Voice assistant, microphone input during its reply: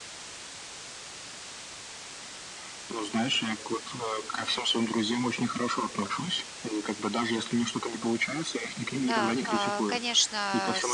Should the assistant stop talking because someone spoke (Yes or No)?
Yes